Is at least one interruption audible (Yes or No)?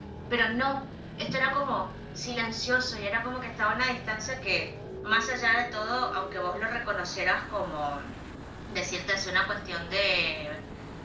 No